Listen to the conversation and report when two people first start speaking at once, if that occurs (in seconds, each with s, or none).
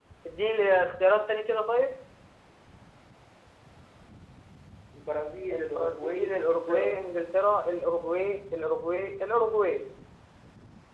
5.5 s